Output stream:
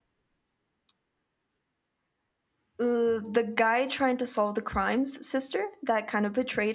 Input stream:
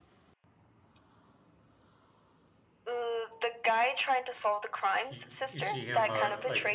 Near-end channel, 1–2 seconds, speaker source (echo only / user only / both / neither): neither